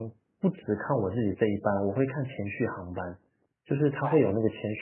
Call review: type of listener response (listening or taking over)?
listening